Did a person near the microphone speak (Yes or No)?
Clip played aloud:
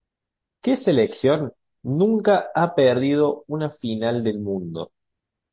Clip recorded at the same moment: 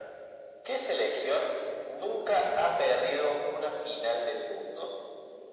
No